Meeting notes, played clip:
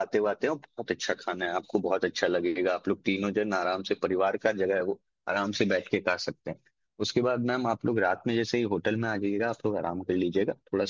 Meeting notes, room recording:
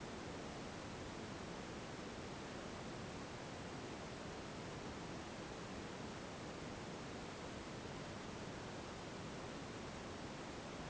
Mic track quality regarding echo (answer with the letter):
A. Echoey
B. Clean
B